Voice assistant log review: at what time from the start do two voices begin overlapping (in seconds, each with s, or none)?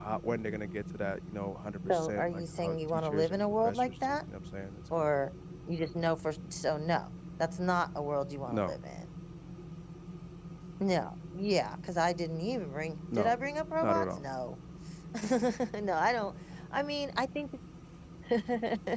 1.9 s